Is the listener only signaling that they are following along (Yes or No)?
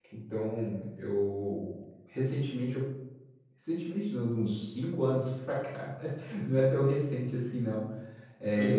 Yes